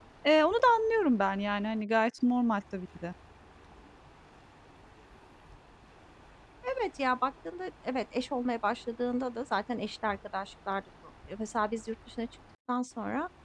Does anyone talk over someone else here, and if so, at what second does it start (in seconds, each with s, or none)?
none